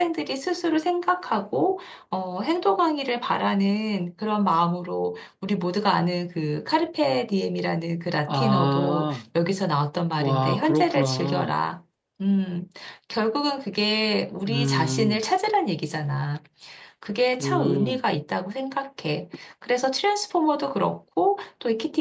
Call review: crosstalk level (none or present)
present